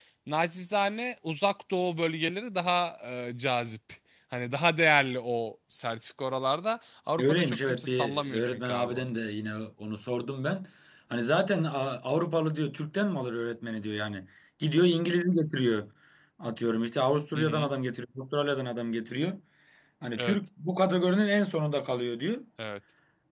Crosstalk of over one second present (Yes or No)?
Yes